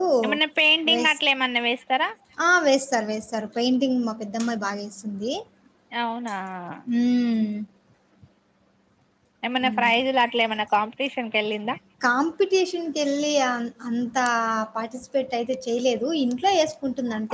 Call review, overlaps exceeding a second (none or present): none